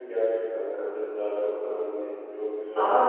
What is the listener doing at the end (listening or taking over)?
taking over